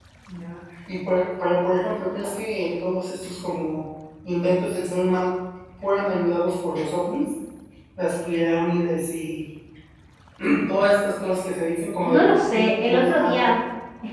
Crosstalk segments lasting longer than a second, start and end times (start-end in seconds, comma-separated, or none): 12.0-13.5